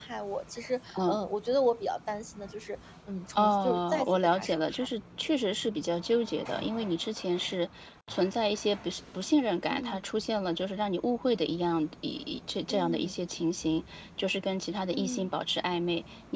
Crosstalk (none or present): present